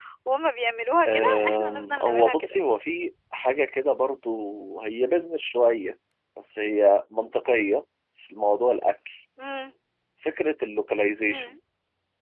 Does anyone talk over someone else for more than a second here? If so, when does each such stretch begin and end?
1.1-2.6

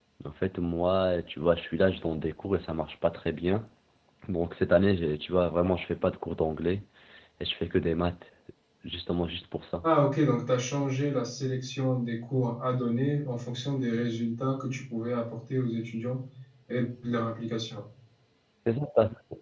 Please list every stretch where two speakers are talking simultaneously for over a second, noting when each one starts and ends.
none

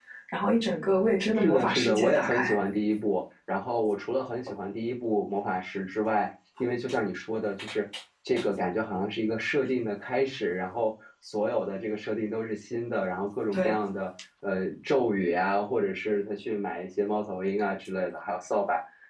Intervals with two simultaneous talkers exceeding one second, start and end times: 1.3-2.5

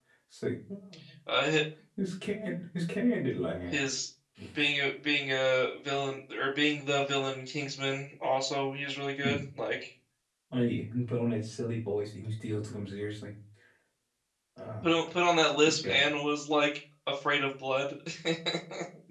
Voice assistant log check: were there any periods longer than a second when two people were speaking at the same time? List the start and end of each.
none

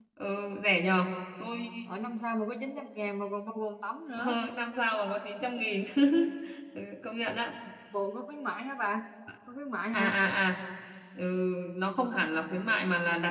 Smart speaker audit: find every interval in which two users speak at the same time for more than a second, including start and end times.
none

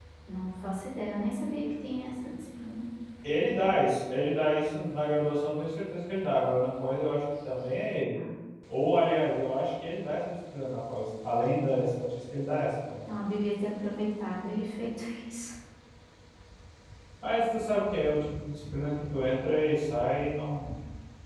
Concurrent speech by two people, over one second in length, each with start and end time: none

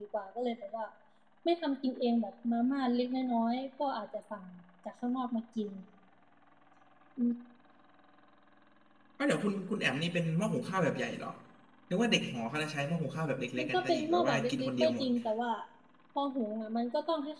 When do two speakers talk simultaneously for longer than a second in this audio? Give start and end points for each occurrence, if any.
13.6-15.1

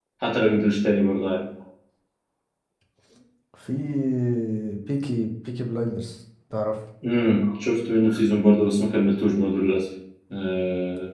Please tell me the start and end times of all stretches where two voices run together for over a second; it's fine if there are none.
none

